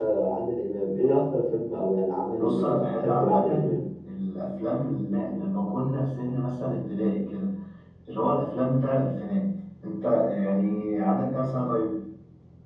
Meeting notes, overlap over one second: present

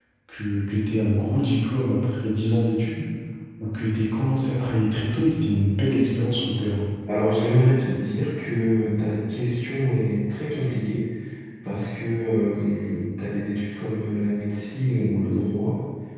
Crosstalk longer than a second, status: none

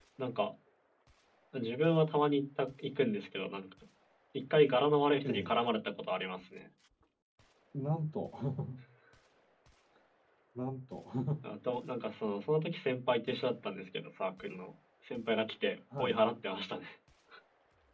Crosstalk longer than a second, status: none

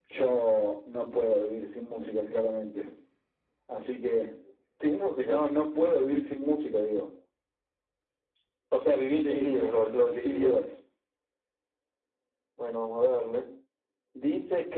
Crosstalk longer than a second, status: present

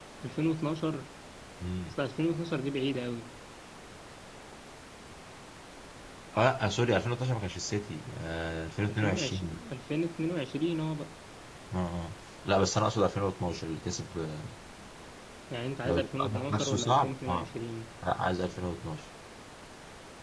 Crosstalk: present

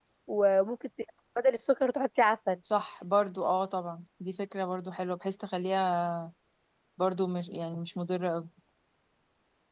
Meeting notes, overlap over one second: none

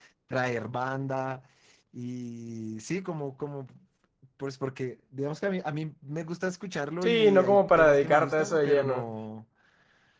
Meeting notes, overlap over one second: present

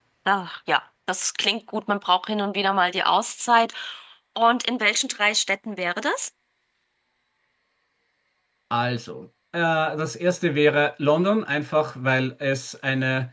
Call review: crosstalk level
none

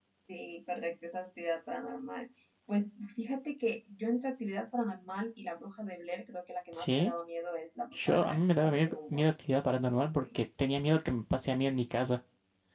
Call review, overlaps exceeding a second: present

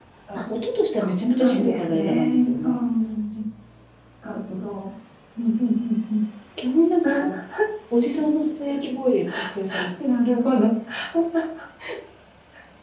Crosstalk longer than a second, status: present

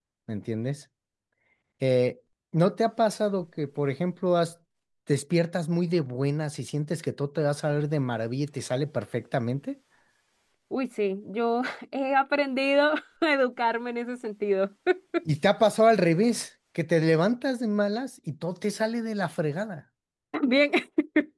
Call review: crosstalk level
none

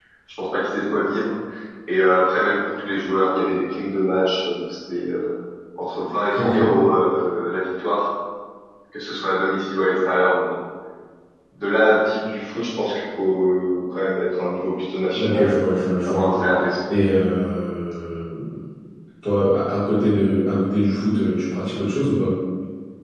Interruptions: present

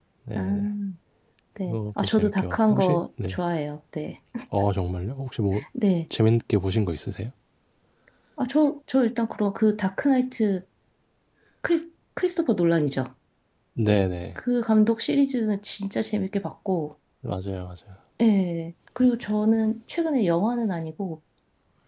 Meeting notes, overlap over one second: present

